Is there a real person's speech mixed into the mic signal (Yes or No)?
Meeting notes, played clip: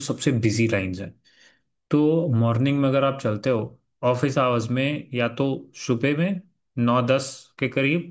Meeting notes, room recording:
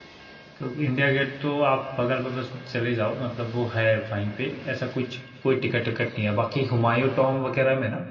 Yes